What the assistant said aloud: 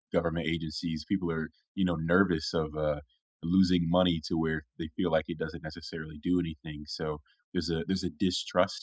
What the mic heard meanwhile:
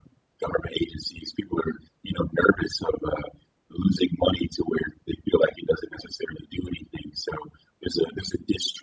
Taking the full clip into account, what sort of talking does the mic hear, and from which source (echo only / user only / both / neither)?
echo only